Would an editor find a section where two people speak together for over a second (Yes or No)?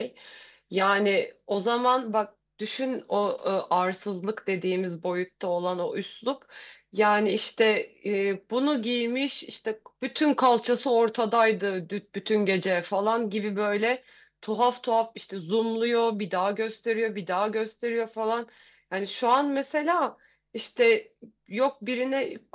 No